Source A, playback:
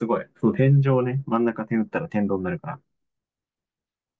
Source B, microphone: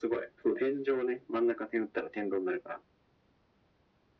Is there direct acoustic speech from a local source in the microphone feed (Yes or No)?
No